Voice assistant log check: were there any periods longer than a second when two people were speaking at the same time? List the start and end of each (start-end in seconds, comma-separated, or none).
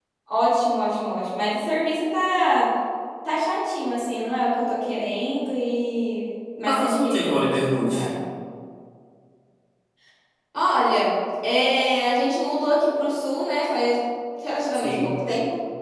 6.7-8.1